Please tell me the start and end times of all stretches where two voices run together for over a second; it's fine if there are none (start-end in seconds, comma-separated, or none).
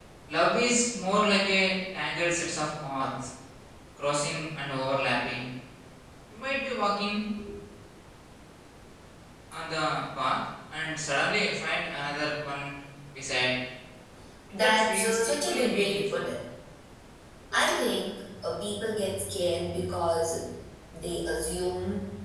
14.5-16.3